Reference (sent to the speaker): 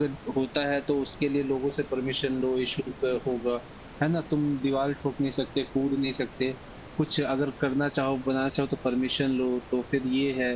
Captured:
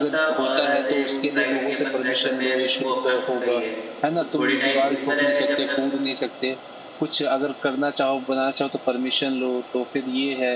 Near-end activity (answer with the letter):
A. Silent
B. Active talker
B